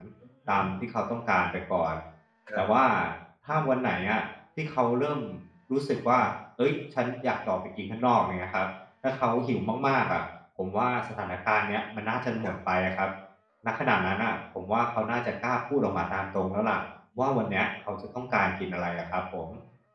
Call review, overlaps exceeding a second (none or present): none